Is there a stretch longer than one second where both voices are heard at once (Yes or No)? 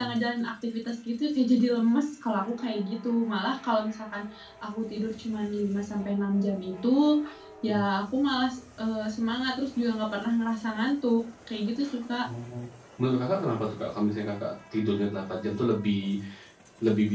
No